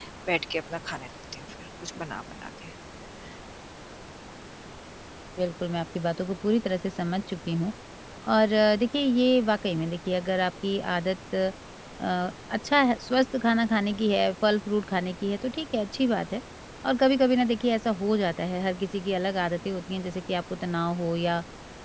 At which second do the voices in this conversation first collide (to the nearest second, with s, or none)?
none